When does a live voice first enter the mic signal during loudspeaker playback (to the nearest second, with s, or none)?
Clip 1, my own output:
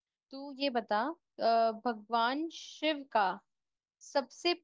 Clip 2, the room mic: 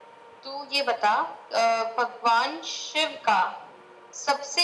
none